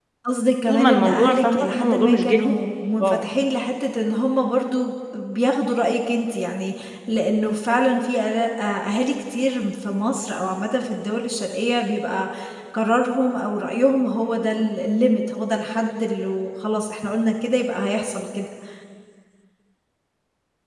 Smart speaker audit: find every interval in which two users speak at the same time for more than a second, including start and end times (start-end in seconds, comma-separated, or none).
0.7-2.6